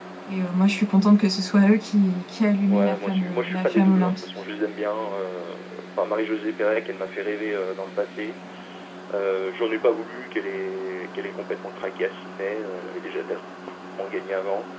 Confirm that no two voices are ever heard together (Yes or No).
No